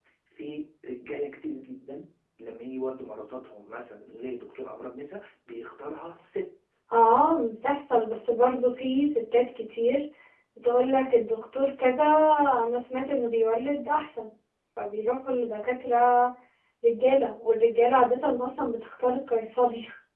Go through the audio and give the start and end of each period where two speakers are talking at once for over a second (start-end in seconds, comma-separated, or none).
none